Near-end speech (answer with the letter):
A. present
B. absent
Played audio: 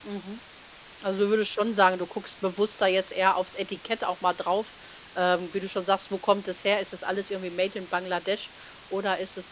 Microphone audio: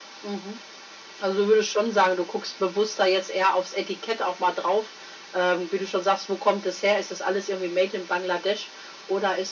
B